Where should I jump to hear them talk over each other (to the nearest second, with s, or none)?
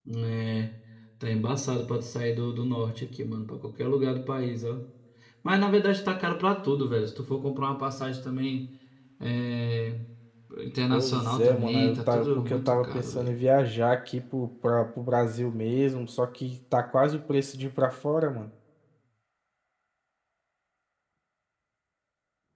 11 s